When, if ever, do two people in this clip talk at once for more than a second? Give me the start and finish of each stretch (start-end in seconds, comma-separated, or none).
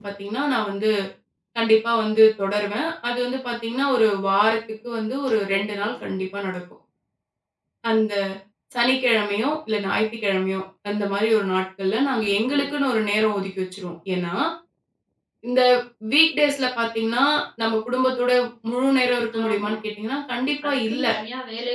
none